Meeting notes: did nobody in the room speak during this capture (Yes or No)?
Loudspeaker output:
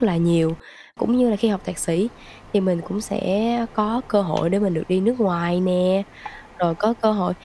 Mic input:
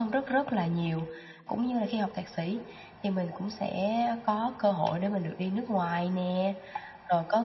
Yes